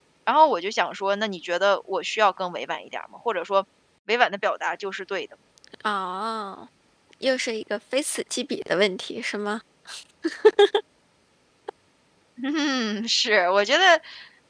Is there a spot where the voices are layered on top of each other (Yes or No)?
No